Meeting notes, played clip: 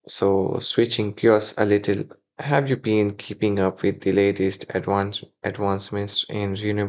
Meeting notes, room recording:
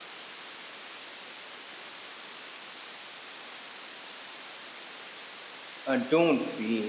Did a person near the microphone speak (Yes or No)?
Yes